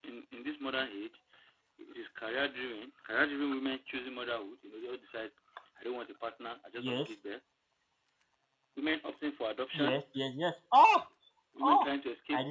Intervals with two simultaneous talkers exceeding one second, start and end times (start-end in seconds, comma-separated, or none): none